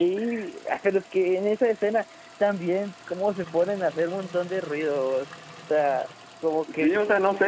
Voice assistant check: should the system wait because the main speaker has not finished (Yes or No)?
No